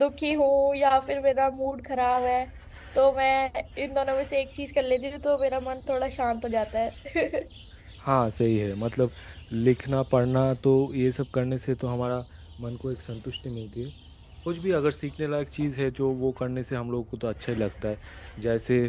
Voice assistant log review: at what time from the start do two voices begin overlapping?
none

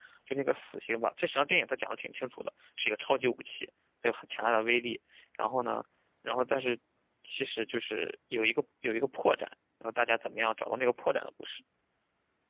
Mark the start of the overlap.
none

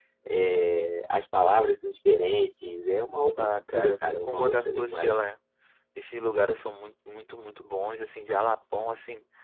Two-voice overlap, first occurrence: 3.4 s

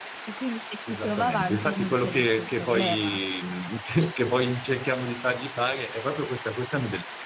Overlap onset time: 0.9 s

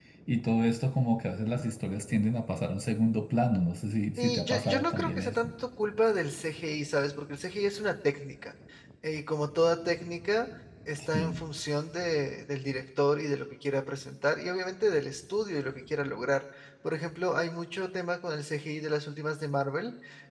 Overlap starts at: 4.2 s

